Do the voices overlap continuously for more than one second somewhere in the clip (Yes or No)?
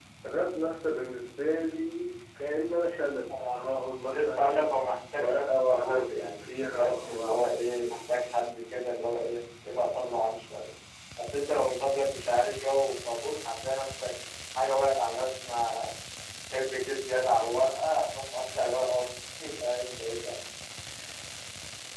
Yes